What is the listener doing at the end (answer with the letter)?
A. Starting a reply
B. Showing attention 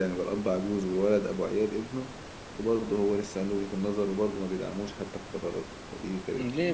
A